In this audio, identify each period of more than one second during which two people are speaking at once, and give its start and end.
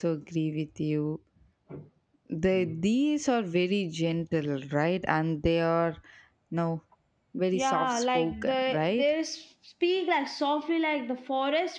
7.5-9.1

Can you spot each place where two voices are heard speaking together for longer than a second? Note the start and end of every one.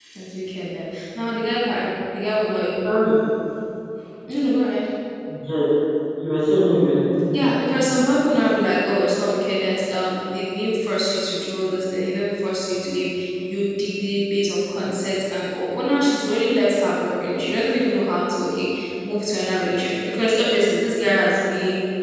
none

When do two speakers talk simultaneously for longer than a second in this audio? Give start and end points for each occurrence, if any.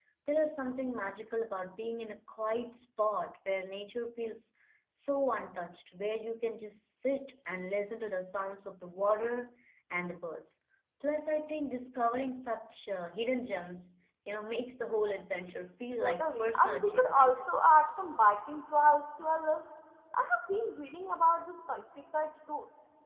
16.0-17.4

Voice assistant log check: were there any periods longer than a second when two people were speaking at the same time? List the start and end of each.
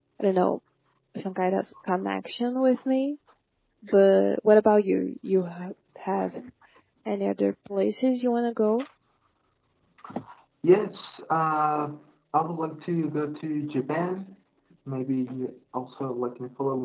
none

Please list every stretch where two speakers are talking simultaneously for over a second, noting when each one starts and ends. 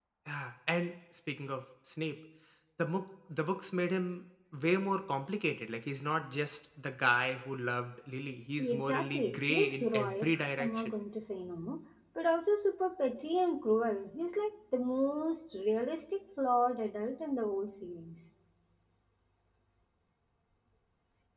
8.6-10.9

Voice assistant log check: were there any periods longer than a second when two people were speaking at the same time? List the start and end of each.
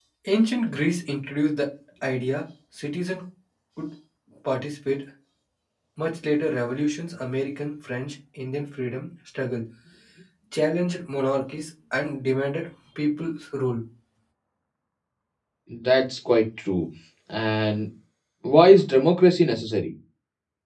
none

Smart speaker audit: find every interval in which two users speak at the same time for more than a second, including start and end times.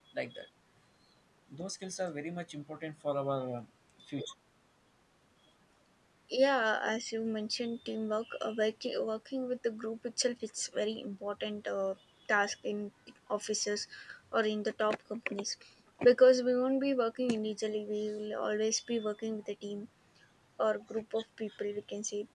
none

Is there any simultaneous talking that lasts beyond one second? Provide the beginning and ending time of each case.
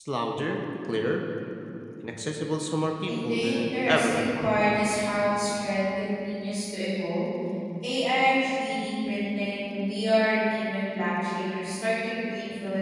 3.1-4.5

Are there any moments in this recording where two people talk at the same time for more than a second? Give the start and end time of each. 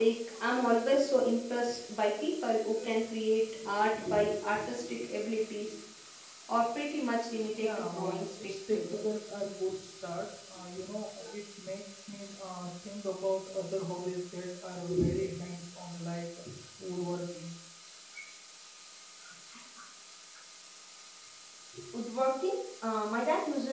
7.5-9.1

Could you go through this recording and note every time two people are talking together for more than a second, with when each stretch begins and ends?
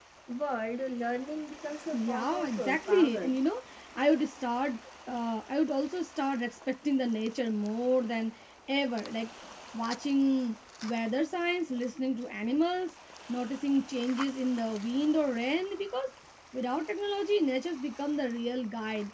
1.9-3.4

